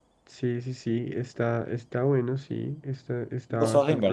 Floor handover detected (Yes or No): Yes